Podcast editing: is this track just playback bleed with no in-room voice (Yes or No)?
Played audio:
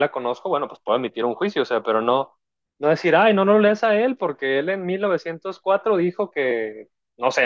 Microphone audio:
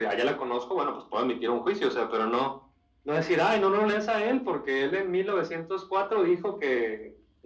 Yes